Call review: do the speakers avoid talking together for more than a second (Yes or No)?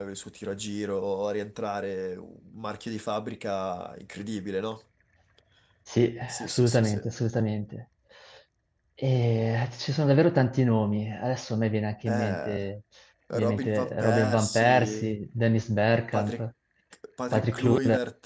No